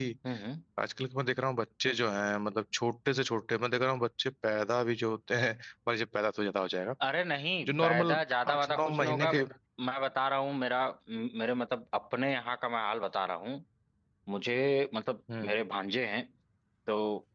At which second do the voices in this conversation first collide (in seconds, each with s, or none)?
7.7 s